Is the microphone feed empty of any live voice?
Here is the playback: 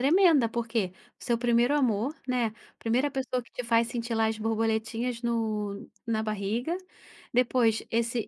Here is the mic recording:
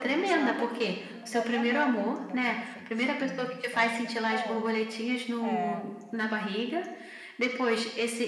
No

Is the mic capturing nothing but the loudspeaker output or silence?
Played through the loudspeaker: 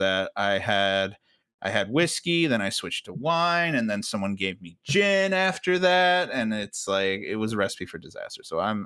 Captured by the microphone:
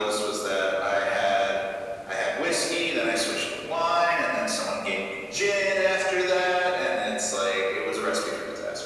Yes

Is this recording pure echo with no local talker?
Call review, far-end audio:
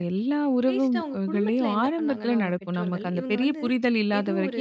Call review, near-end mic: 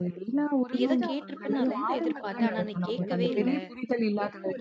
No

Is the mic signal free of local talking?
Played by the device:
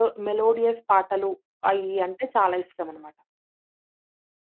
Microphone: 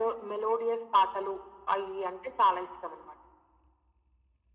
Yes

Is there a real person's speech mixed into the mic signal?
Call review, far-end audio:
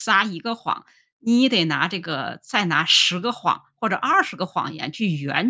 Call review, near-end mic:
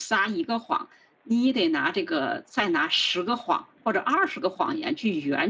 No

